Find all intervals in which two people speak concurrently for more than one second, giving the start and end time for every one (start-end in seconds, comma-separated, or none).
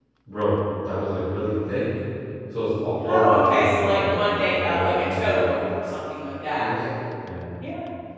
3.1-5.5